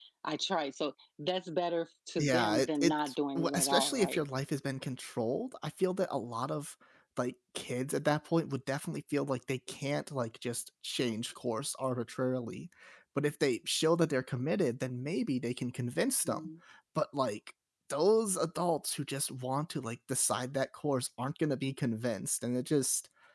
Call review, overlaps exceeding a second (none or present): present